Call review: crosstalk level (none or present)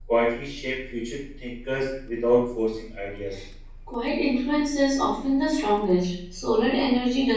none